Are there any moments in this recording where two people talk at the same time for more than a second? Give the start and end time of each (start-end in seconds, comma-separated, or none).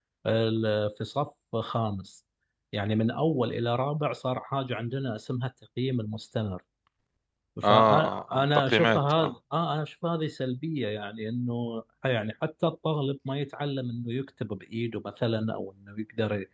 7.6-9.3